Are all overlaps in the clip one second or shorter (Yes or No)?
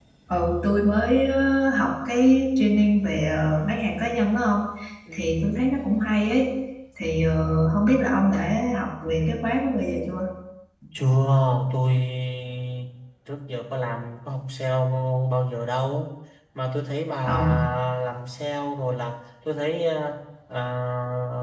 Yes